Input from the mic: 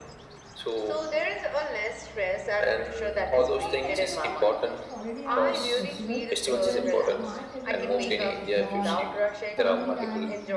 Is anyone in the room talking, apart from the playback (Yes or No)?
Yes